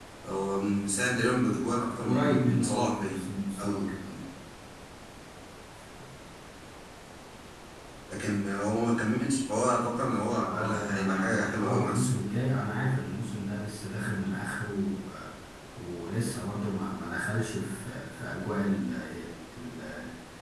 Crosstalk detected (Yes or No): Yes